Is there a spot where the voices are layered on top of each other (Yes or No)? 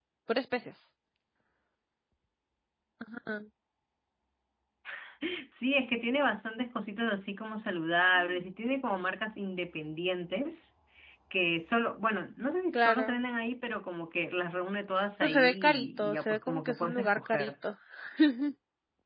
Yes